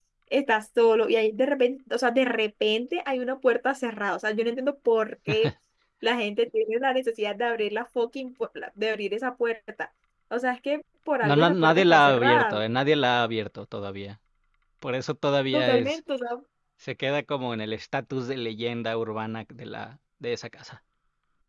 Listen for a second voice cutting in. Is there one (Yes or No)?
Yes